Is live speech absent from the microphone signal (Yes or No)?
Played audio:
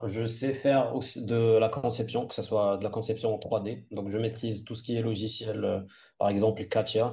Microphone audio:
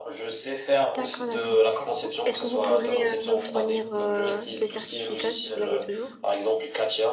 No